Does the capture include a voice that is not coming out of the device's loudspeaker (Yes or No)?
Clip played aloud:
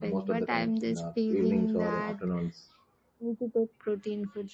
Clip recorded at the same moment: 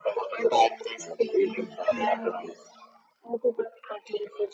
Yes